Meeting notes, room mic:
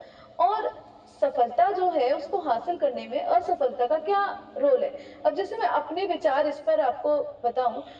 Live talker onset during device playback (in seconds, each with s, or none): none